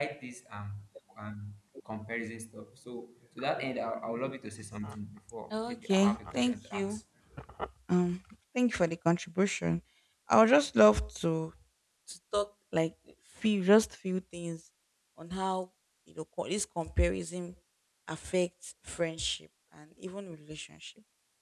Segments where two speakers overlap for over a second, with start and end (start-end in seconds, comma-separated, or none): 5.5-7.0